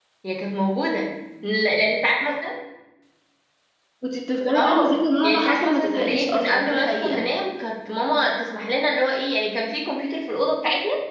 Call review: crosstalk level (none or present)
present